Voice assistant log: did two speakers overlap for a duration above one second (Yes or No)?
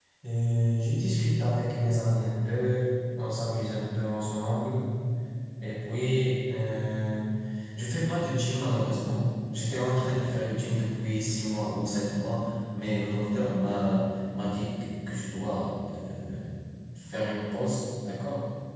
No